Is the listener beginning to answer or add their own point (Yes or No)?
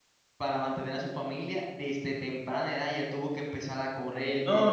Yes